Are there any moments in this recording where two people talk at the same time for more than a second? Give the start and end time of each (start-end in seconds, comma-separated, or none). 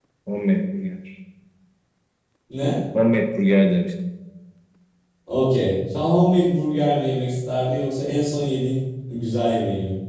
none